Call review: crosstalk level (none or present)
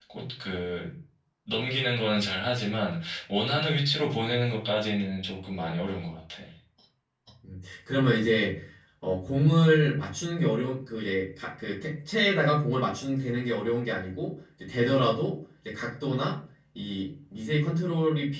none